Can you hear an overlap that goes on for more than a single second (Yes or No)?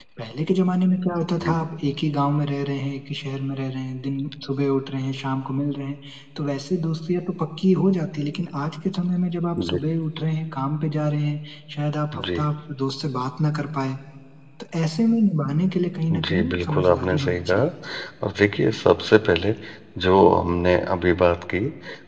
Yes